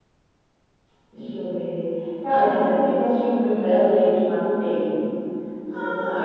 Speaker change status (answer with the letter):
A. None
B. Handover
B